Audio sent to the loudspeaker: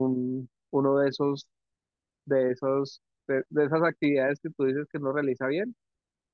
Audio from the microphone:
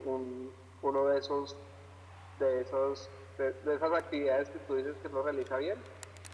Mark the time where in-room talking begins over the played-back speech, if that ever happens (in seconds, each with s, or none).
none